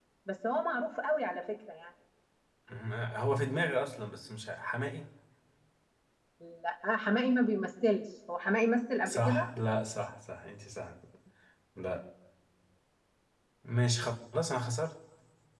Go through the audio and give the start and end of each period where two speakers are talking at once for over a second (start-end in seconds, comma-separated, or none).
none